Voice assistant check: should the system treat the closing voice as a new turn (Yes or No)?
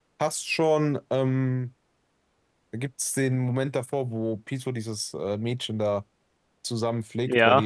No